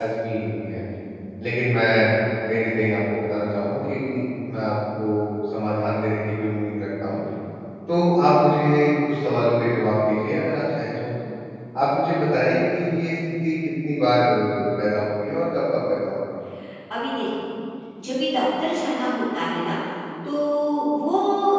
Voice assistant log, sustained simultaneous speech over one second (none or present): none